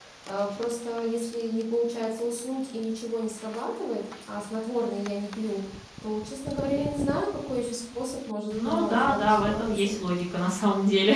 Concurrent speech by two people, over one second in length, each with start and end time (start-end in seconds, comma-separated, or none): 8.5-10.0